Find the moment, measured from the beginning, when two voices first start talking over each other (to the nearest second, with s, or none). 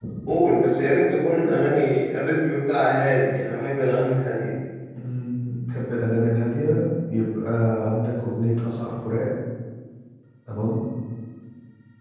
none